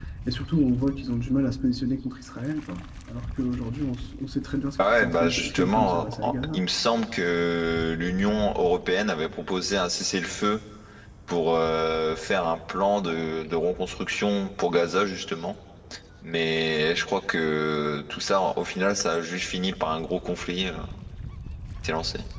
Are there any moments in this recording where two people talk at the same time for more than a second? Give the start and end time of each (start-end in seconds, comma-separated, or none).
5.0-6.6